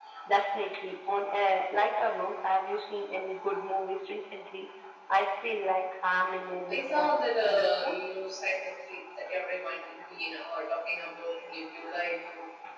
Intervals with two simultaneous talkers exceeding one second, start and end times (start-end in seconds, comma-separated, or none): 6.7-8.0